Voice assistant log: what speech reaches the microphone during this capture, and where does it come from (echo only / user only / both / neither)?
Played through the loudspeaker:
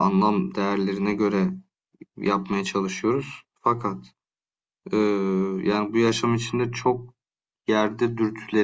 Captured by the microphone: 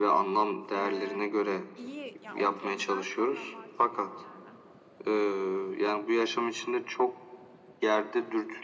both